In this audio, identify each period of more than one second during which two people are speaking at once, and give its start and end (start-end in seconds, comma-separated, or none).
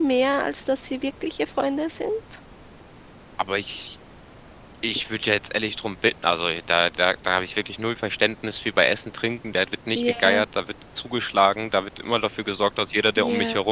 none